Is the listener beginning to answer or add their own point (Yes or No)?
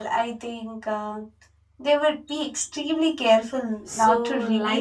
Yes